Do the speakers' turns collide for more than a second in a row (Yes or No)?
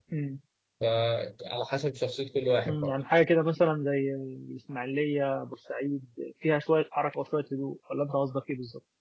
No